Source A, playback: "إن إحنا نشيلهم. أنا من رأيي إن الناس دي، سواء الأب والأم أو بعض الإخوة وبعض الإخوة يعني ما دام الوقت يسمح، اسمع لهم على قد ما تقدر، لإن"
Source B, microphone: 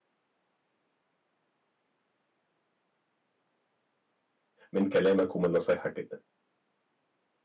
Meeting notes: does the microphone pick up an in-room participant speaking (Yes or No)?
Yes